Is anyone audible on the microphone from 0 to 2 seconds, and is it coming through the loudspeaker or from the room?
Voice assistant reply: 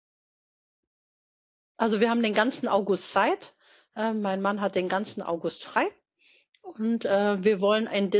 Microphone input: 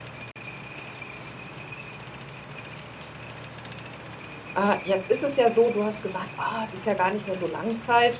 neither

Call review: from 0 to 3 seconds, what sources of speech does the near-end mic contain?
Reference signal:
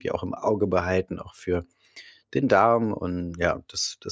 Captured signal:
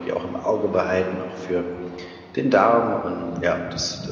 echo only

